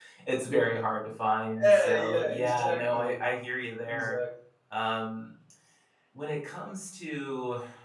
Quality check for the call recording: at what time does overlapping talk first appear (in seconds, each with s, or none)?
1.6 s